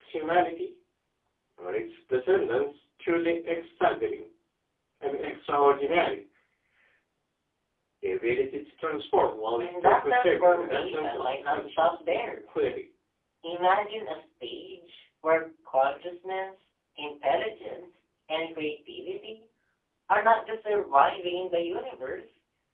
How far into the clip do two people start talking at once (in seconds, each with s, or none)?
9.6 s